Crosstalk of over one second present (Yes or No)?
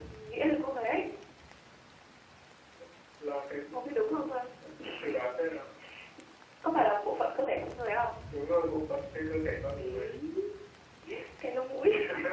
No